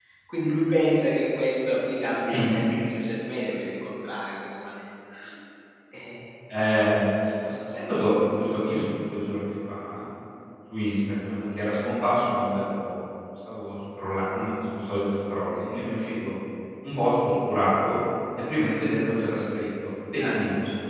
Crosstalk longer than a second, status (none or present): none